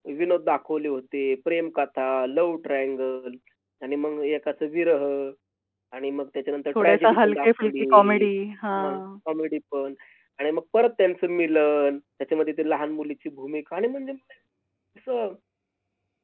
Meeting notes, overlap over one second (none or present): present